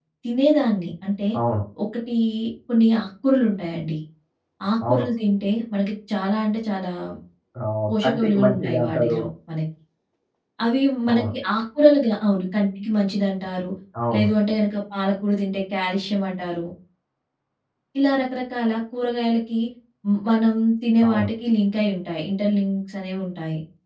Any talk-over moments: Yes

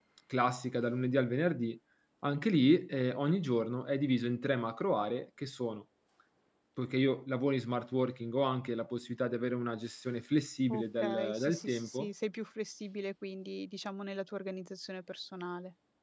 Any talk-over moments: Yes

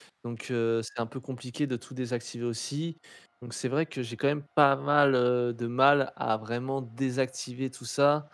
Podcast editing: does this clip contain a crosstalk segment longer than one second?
No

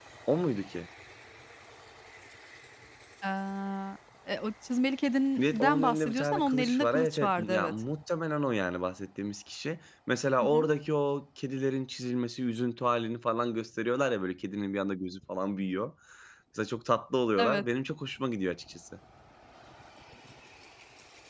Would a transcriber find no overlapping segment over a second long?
No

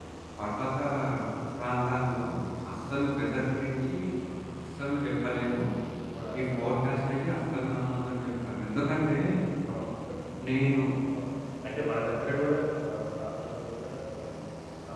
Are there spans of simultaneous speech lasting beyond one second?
No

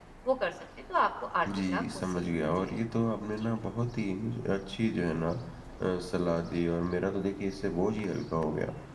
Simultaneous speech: Yes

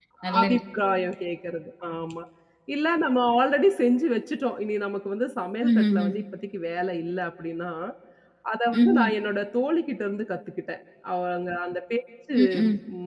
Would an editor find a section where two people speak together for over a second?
No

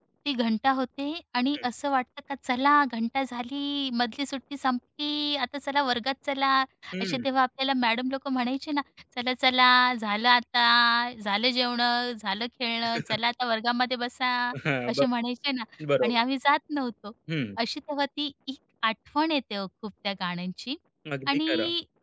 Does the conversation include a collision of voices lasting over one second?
No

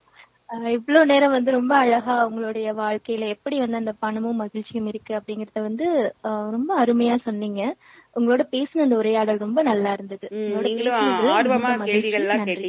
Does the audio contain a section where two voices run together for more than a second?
Yes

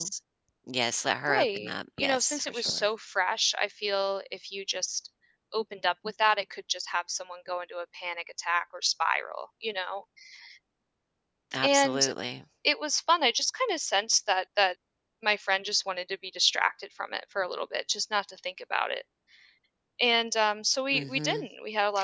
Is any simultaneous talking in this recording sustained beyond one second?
Yes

